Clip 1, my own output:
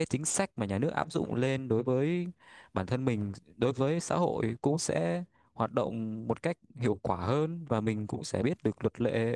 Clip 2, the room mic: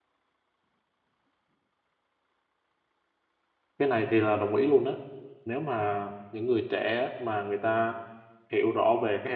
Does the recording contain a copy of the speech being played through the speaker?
No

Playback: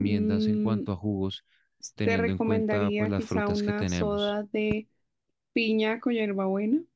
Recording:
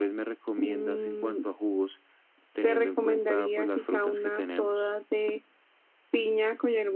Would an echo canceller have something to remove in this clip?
Yes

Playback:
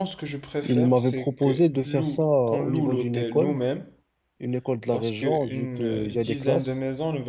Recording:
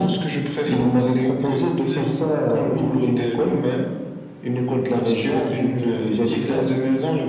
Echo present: Yes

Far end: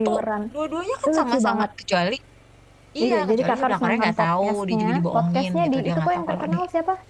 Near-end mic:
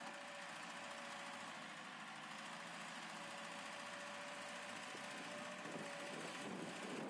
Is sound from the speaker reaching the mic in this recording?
No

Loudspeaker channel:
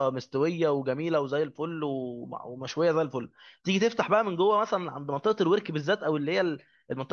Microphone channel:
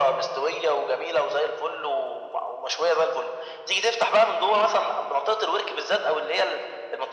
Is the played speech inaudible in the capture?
No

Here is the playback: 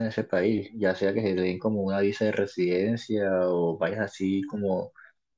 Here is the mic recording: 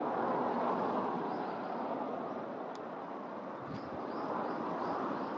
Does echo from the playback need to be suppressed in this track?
No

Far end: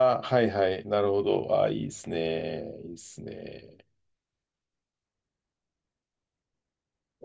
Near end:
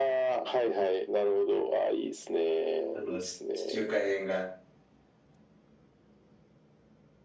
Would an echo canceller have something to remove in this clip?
Yes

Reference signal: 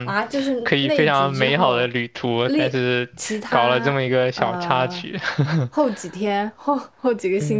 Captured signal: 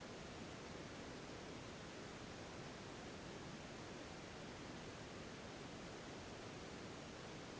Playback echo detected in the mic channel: No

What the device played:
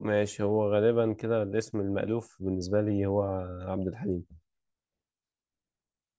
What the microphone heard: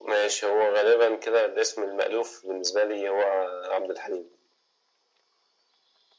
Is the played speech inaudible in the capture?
No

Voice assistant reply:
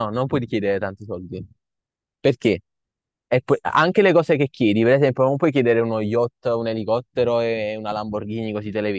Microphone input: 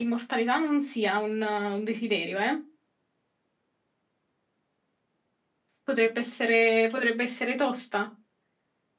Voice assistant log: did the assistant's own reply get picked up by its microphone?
No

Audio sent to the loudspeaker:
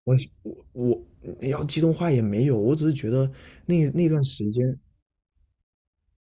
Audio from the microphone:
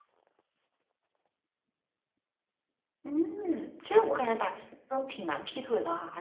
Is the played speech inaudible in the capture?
Yes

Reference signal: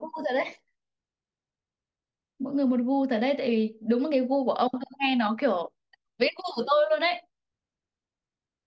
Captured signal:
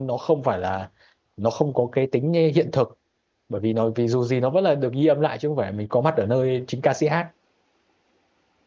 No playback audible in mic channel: Yes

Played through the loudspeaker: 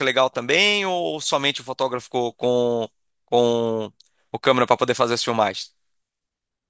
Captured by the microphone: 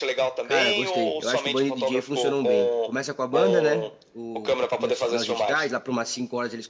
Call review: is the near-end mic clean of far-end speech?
No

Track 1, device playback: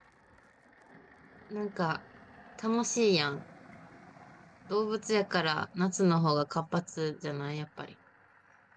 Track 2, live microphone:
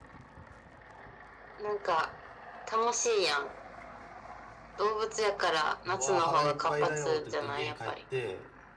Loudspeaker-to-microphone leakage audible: Yes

